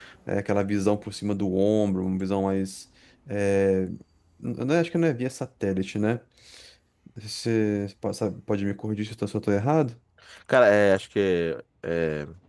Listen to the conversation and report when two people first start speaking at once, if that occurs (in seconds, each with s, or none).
none